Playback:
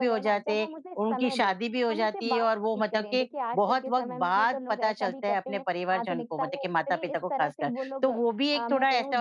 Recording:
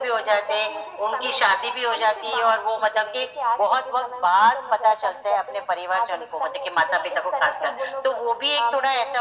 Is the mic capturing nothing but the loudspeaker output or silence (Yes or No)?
Yes